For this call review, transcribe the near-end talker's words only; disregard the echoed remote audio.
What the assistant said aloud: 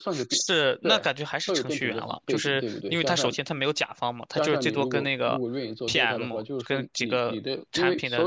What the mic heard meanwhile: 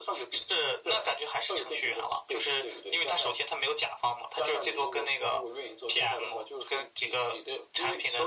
none

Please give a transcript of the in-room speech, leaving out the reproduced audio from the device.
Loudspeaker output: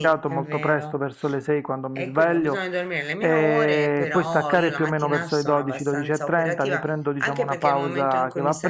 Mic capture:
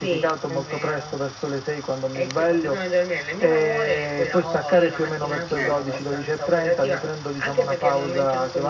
Ecco.

